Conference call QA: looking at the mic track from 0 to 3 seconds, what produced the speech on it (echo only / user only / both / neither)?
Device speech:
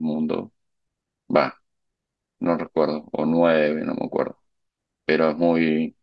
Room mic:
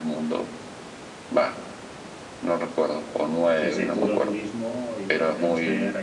echo only